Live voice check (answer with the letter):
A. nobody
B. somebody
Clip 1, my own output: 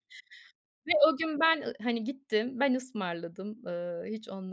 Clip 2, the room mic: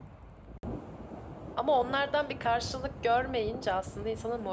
B